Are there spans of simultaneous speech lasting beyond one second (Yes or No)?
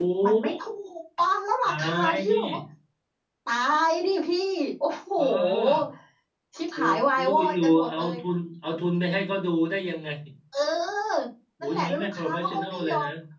Yes